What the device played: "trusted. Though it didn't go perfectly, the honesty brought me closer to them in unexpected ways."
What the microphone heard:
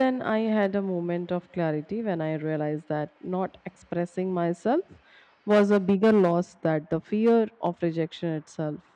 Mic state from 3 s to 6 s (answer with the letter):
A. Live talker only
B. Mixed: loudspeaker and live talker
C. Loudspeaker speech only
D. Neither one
A